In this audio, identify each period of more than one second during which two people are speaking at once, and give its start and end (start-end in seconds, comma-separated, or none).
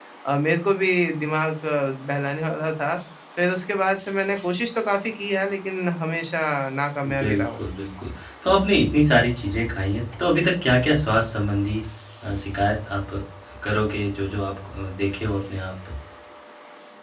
none